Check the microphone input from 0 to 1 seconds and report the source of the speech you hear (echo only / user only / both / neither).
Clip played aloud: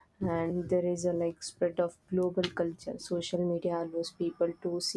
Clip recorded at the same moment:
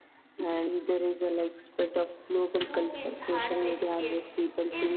echo only